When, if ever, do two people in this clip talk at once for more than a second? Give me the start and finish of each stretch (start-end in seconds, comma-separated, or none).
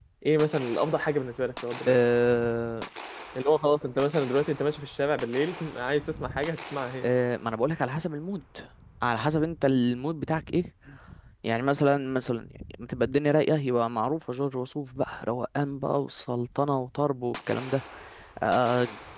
none